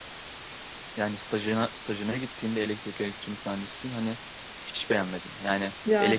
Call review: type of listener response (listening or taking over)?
listening